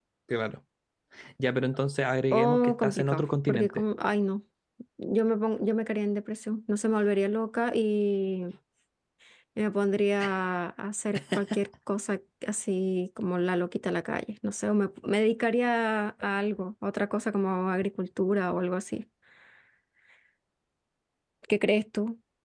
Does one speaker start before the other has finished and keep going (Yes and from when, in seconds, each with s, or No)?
Yes, from 2.3 s